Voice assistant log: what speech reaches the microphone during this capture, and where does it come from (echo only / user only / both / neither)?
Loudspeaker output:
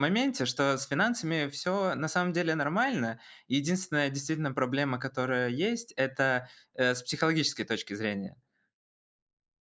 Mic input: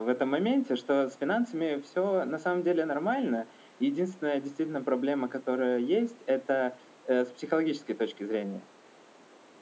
echo only